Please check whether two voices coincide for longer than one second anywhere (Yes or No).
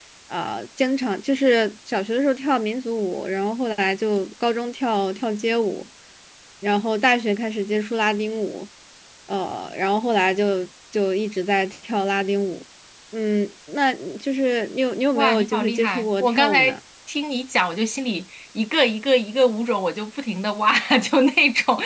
Yes